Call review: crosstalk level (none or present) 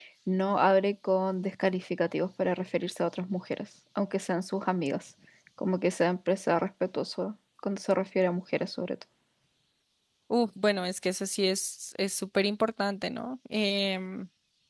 none